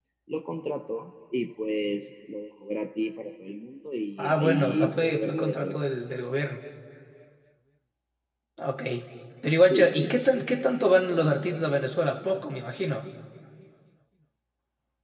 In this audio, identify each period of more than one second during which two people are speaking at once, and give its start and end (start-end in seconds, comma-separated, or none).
4.2-5.7